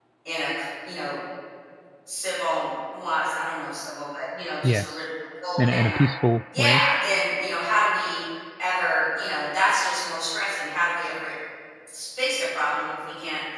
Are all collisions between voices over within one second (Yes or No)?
Yes